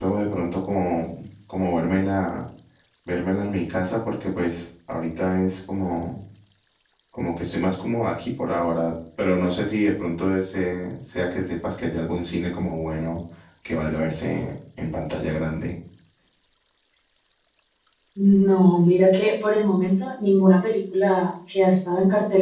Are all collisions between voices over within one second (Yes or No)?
Yes